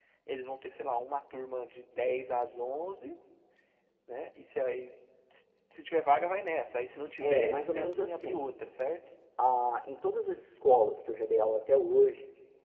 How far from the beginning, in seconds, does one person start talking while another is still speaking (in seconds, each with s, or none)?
7.2 s